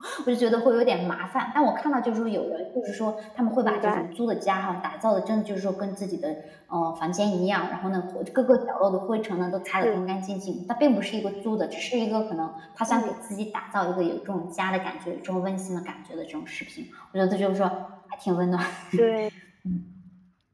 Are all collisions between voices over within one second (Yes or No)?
Yes